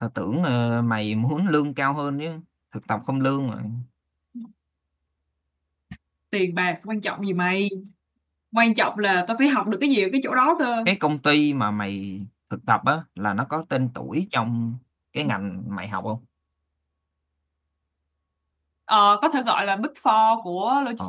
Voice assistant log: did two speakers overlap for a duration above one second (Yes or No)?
No